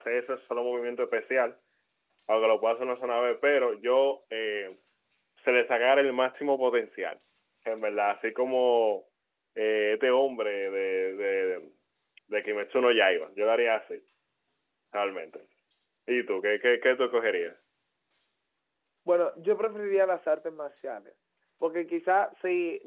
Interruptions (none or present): none